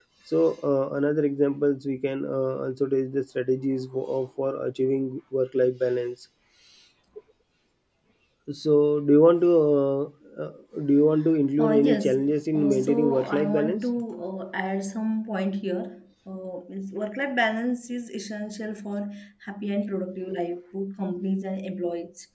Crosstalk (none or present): present